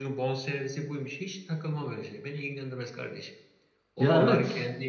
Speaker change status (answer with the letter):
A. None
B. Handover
A